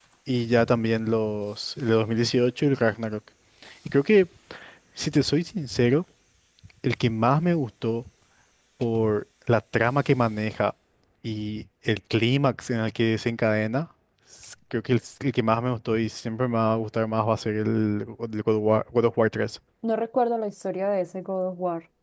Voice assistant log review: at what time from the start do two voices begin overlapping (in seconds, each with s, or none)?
none